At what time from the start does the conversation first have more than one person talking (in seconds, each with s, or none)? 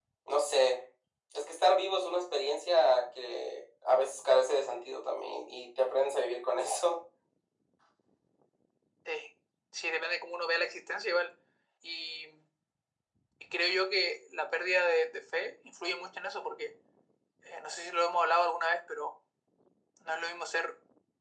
none